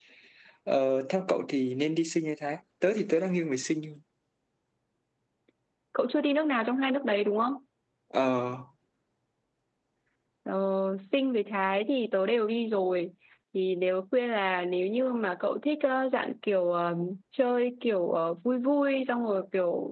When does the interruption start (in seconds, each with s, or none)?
none